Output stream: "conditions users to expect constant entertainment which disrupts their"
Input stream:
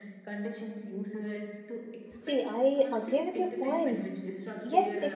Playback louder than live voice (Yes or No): No